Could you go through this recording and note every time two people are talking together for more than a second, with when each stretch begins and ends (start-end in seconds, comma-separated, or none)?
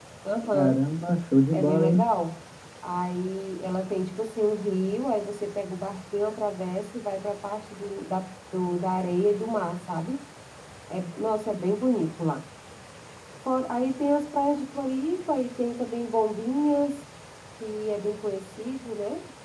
none